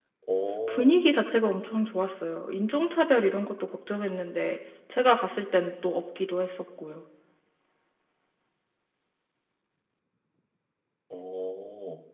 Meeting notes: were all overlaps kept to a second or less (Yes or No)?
Yes